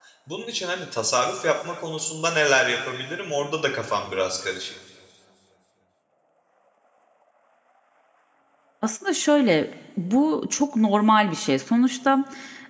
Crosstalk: none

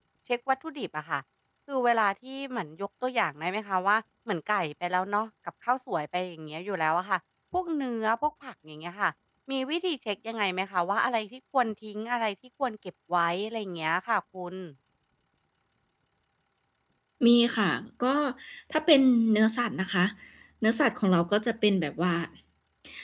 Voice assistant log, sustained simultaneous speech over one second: none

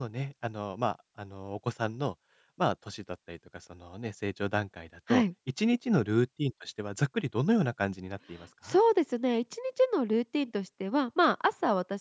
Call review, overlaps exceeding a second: none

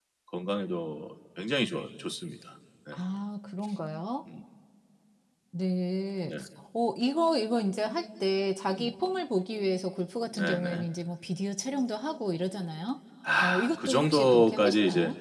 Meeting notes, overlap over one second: present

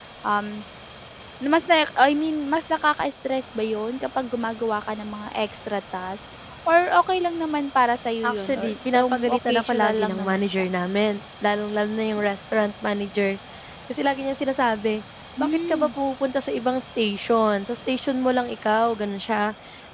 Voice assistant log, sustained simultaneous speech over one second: present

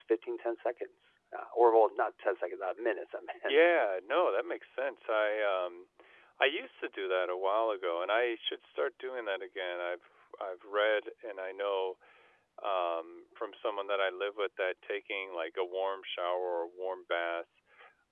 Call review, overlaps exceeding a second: none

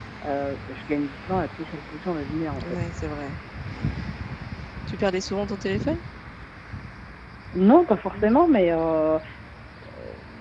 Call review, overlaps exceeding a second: none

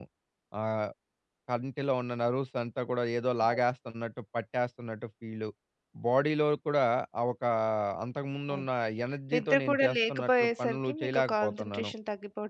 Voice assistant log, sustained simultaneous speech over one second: present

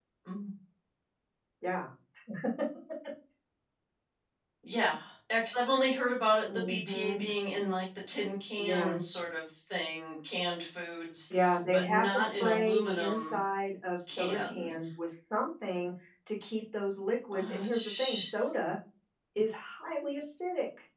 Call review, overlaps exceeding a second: present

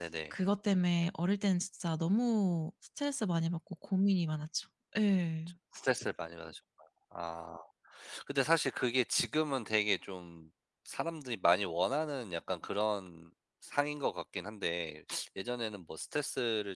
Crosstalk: none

